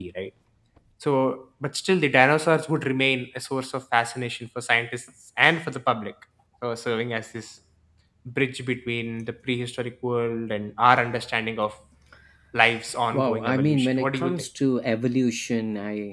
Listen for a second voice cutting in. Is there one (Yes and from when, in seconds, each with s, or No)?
Yes, from 13.1 s